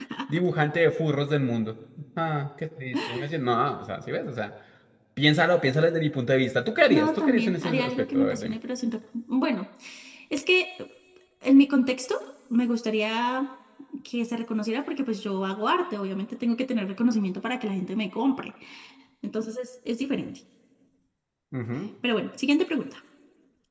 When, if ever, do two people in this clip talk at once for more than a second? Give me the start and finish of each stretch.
6.9-8.6

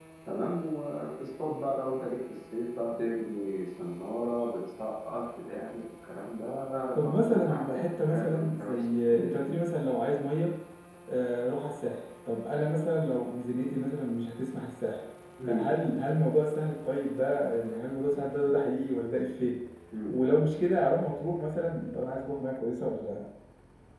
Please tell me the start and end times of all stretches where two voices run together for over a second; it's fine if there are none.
7.0-9.4

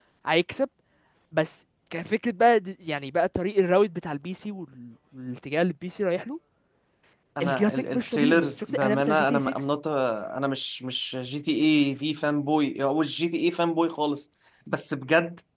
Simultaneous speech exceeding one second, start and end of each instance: 7.4-9.5

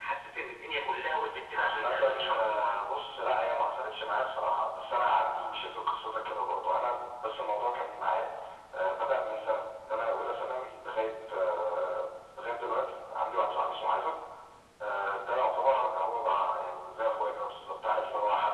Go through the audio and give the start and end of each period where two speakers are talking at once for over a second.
1.6-2.8

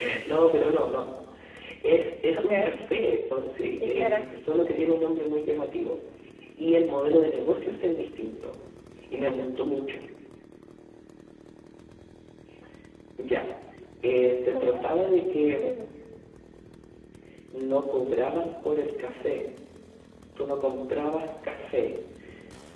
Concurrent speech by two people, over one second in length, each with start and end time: 14.5-15.7

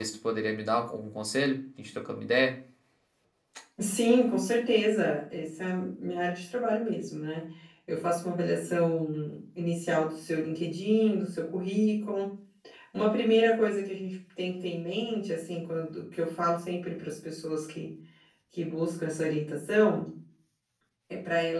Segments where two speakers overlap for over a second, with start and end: none

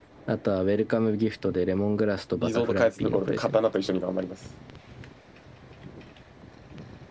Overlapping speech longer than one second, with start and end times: 2.4-3.6

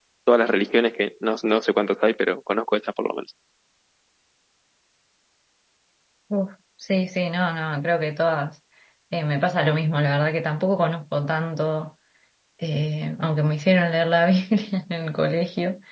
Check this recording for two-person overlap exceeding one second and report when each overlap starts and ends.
none

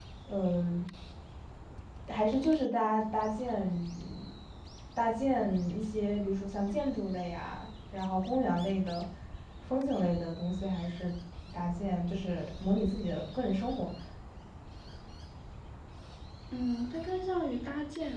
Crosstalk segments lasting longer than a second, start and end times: none

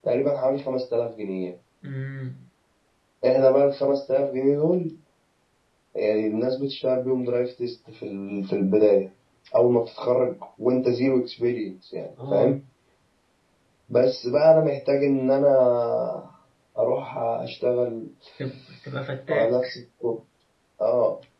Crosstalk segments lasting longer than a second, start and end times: none

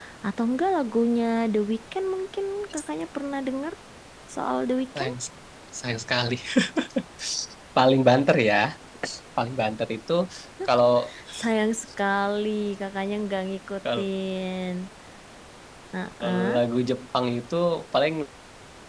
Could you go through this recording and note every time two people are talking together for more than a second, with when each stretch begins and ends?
none

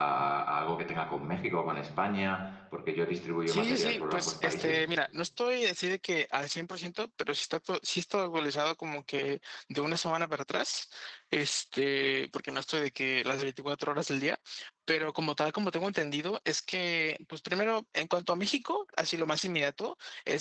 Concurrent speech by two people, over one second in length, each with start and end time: 3.5-4.8

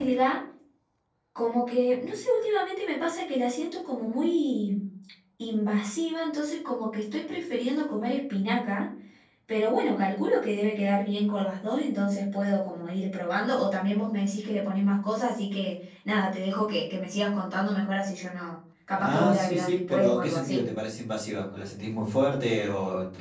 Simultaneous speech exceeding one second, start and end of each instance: 19.0-20.6

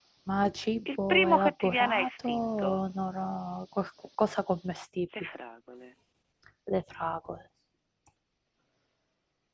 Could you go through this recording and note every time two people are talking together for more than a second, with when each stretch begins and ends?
1.1-2.8

